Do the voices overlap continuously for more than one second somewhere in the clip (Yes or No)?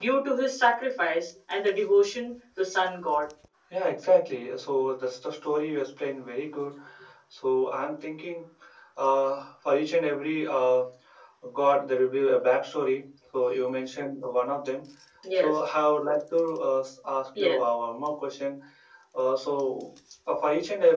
No